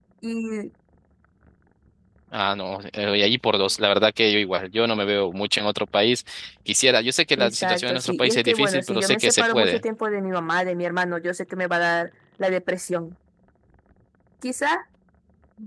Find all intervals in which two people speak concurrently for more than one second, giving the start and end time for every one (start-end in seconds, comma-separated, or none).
7.4-9.8